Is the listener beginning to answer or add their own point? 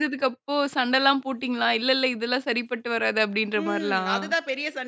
Yes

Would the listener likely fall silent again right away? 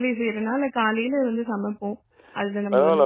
No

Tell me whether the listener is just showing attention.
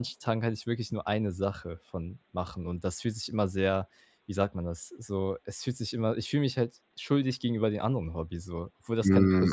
No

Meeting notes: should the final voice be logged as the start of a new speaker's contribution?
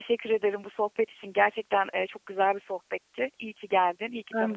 Yes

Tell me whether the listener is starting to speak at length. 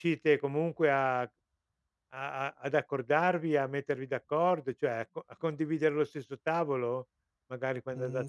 Yes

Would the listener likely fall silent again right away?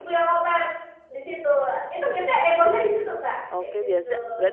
No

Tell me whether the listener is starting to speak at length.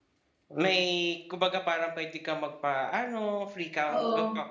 No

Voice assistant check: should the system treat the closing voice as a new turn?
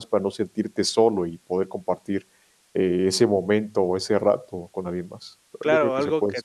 Yes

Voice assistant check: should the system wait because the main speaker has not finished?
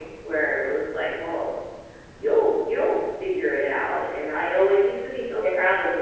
Yes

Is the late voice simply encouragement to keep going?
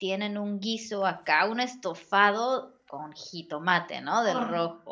Yes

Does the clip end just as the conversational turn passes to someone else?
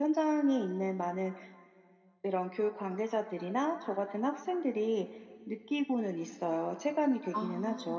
Yes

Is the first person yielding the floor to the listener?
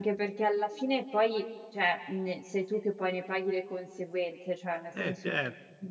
No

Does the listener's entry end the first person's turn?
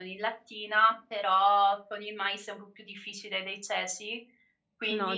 No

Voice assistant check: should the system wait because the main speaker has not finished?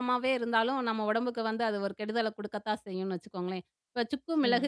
Yes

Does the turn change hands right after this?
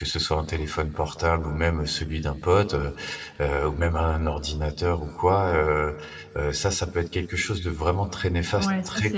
Yes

